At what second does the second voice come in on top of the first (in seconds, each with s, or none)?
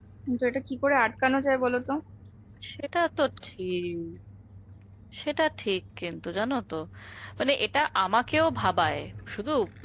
none